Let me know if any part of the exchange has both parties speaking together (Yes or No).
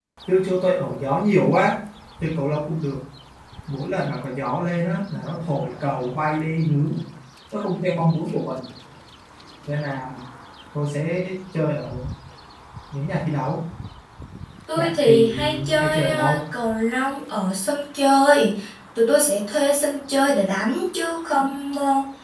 Yes